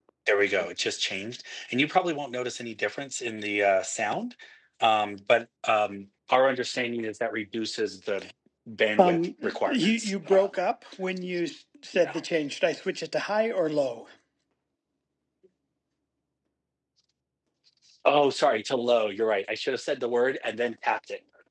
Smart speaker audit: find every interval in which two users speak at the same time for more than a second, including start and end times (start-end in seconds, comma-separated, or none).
9.0-10.5